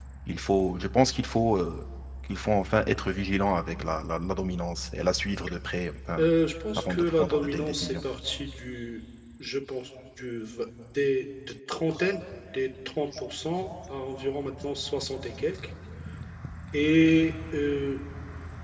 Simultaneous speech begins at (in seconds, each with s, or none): 6.8 s